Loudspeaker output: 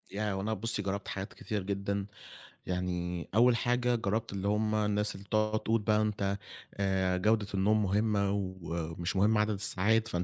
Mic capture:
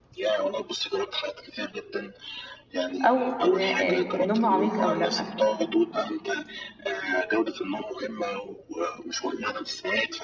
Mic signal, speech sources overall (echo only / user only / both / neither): both